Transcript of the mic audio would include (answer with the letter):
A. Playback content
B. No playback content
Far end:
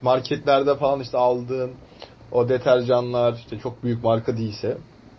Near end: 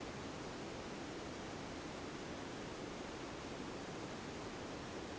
B